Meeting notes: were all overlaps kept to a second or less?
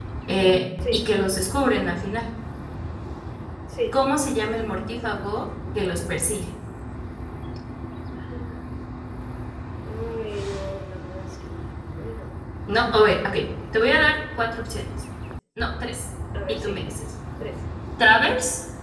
Yes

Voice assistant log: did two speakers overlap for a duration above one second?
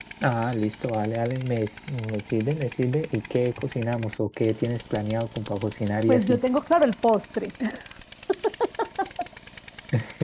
No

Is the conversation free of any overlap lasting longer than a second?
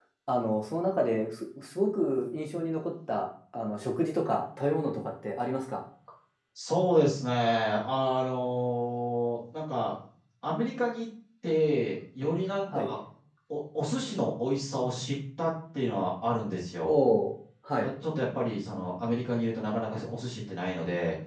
Yes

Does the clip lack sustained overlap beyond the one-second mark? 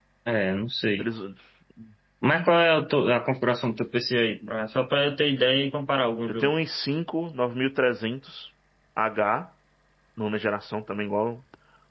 Yes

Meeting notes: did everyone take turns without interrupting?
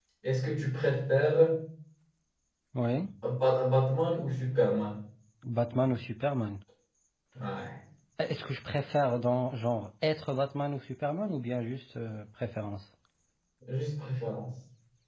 Yes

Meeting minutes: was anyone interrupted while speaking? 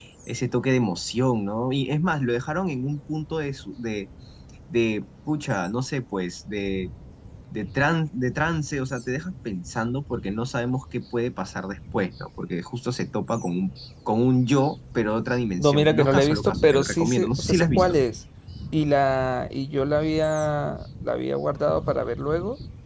Yes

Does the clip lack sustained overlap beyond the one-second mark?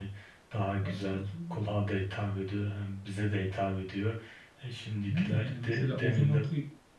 No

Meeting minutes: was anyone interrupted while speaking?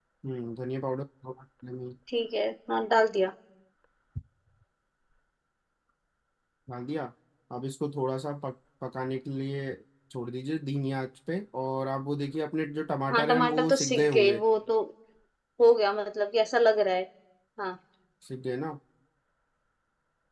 Yes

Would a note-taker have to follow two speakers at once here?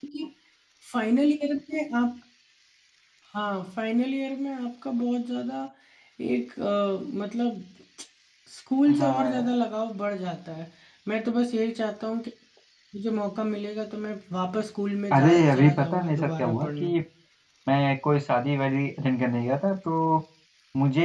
Yes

